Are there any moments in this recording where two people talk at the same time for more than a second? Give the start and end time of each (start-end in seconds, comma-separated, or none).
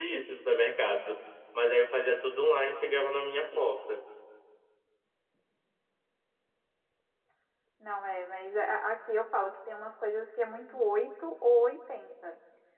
none